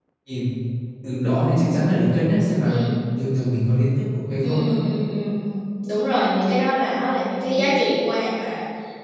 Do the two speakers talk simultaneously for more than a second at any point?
No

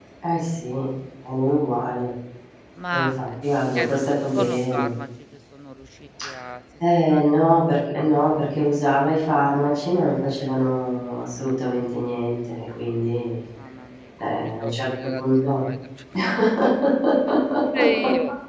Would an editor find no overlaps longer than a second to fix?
No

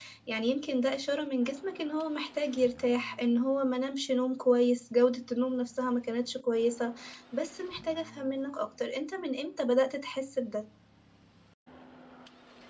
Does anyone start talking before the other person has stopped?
No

